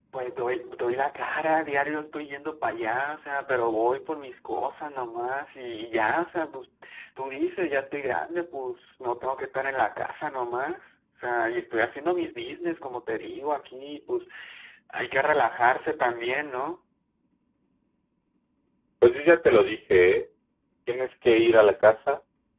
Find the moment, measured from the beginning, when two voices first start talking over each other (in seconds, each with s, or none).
none